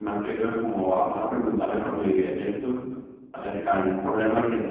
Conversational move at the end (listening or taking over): listening